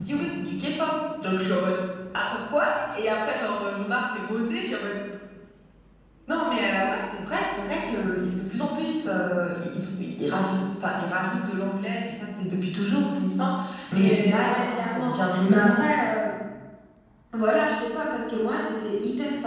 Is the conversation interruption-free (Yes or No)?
No